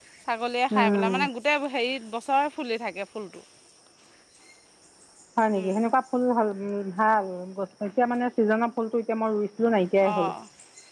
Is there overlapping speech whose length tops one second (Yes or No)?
No